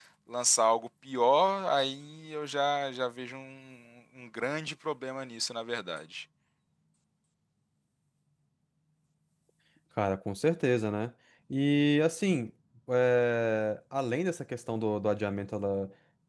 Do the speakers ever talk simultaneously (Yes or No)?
No